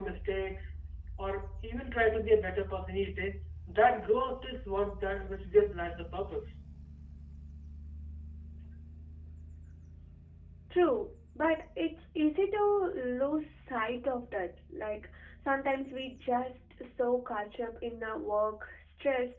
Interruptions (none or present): none